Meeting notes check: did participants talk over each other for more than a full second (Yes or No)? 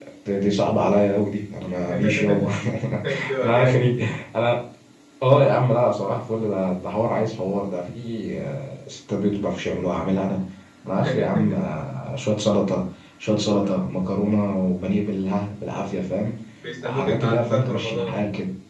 Yes